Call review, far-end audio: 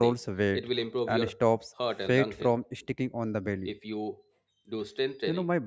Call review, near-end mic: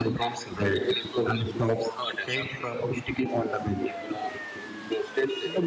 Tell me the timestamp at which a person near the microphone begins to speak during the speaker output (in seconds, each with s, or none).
none